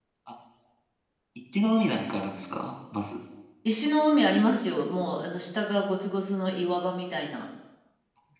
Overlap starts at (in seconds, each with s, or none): none